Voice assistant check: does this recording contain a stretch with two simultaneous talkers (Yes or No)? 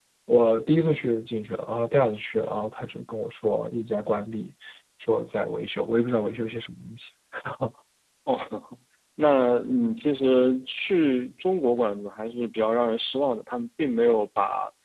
No